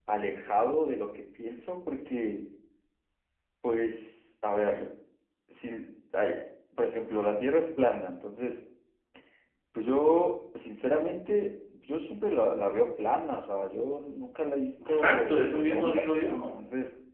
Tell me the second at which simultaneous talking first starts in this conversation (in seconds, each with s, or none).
14.8 s